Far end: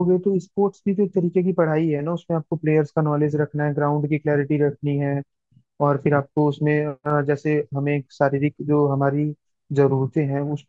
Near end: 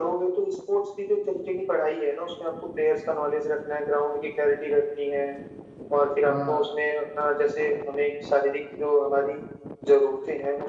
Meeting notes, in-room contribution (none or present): present